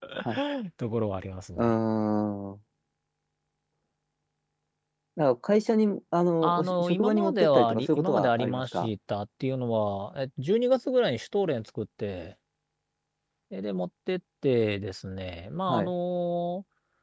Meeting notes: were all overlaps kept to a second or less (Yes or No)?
No